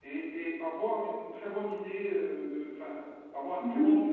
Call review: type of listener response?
taking over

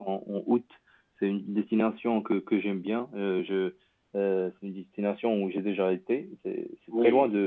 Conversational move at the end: listening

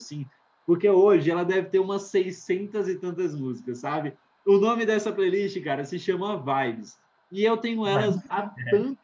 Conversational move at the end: listening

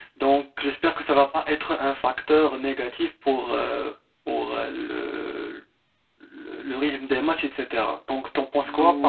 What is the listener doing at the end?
taking over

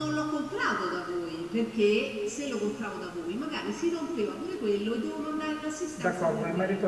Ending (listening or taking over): taking over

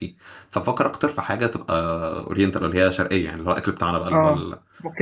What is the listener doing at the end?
taking over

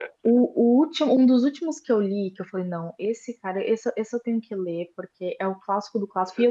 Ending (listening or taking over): listening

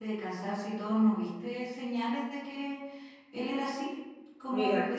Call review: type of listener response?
listening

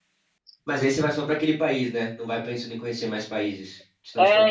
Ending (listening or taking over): taking over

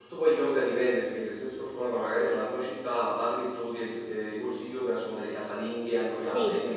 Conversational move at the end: taking over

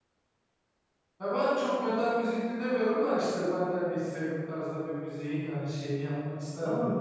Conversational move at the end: taking over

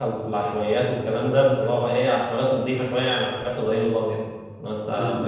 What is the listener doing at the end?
listening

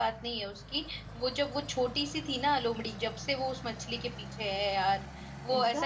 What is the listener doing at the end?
listening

